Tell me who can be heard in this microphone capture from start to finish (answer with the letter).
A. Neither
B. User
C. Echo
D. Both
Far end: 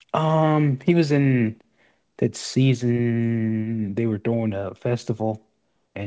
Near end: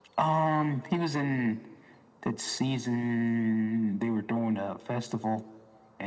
C